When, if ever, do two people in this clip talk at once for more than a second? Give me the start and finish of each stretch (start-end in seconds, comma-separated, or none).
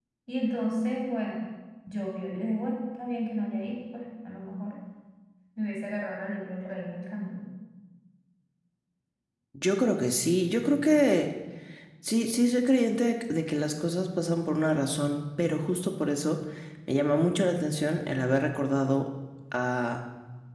none